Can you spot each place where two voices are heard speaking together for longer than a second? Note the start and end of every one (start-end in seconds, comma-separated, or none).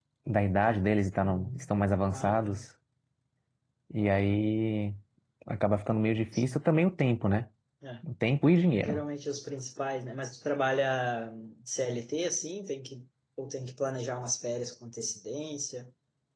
none